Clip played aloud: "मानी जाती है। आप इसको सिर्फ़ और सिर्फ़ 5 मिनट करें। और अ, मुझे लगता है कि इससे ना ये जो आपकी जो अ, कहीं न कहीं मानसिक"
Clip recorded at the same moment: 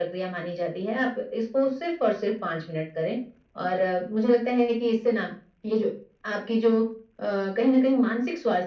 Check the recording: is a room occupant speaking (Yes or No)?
No